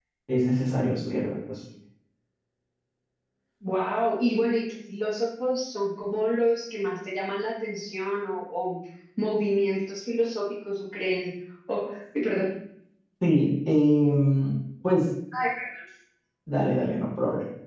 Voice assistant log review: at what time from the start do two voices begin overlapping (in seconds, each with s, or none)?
none